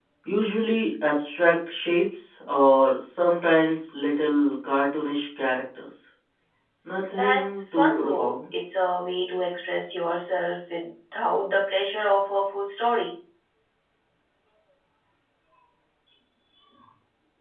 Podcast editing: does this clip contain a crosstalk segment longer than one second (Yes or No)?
Yes